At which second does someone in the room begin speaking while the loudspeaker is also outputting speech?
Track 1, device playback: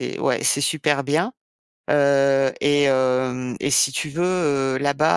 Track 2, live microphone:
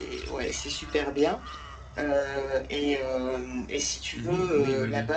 4 s

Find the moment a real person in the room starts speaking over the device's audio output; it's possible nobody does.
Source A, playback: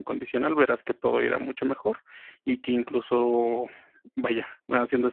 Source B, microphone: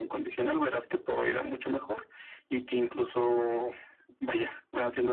none

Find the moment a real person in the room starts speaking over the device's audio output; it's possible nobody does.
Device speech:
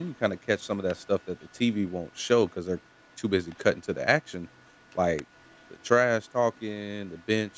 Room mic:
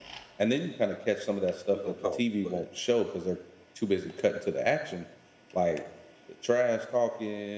2 s

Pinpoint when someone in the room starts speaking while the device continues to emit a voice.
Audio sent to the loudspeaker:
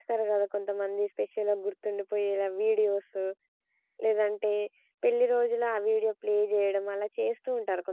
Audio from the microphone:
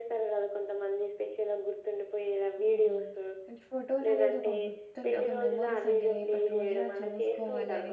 3 s

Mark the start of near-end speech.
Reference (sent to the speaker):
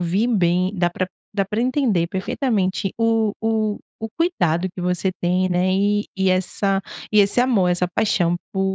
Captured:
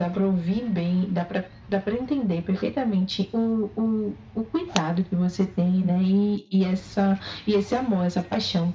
none

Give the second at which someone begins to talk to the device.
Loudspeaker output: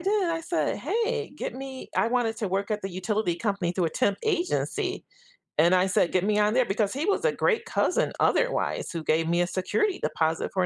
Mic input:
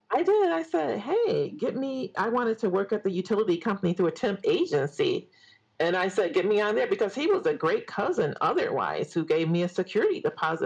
none

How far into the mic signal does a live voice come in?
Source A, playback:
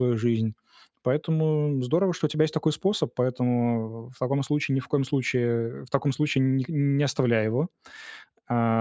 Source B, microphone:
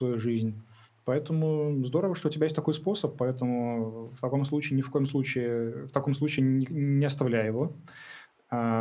none

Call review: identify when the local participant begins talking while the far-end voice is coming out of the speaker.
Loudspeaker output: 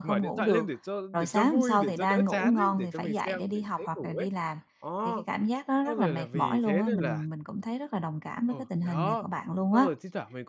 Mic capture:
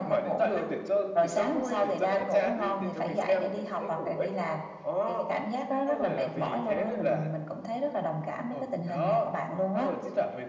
none

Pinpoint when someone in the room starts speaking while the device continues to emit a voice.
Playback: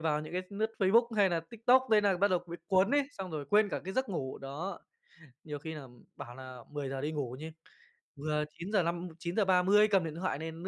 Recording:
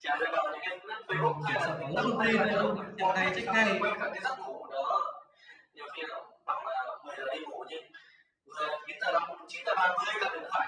1 s

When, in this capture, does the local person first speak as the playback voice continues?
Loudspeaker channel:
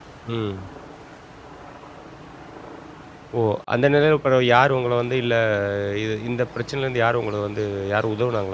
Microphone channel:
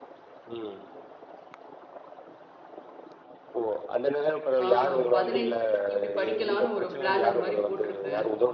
5 s

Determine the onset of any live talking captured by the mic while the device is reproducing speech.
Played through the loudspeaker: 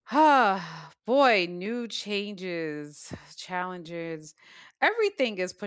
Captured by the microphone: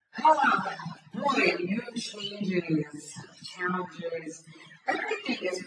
none

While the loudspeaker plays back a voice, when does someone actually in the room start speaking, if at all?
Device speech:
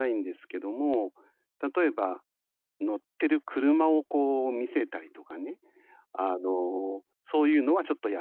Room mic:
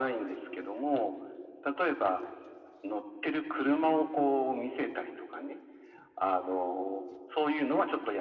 none

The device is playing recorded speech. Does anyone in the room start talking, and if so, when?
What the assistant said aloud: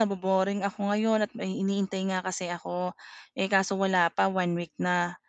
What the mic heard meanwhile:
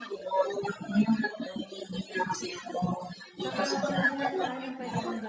3 s

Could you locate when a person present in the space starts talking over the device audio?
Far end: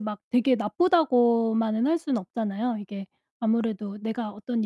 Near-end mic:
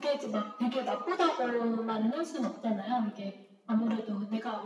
none

